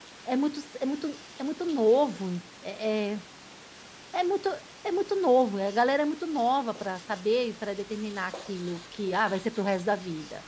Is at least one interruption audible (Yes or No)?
No